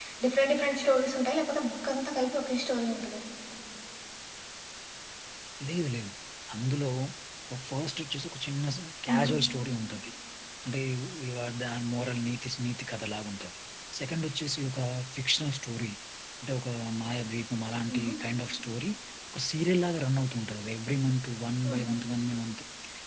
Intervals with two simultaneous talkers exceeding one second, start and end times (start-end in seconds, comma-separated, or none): none